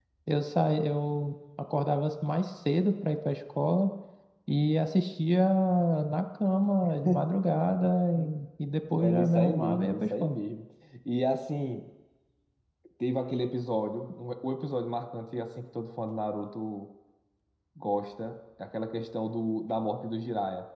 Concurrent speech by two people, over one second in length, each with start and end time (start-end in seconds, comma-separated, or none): 9.0-10.4